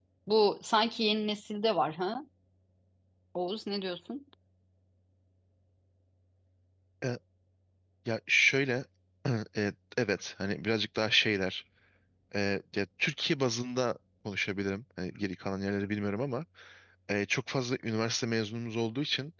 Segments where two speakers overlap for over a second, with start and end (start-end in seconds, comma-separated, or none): none